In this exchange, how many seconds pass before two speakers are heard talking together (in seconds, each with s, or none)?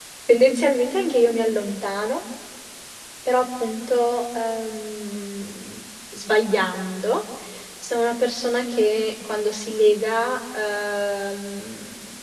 none